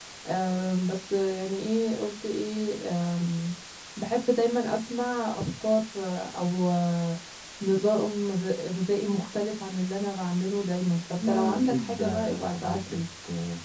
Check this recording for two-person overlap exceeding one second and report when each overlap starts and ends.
11.2-13.0

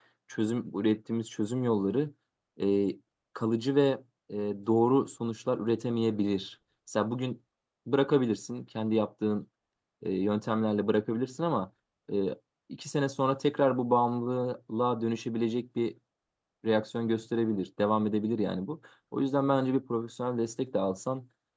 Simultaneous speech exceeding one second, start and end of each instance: none

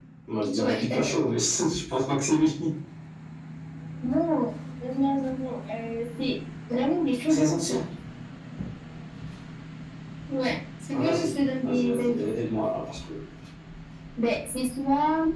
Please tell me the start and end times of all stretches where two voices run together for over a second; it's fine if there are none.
10.9-12.2

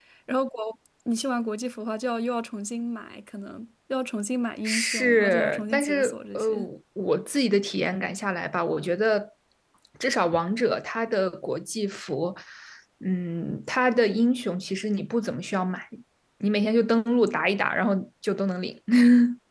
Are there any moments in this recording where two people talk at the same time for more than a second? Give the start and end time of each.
4.6-6.4

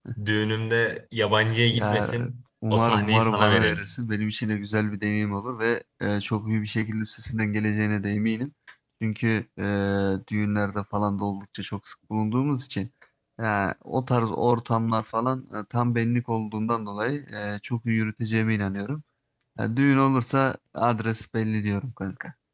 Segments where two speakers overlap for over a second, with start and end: 2.7-3.9

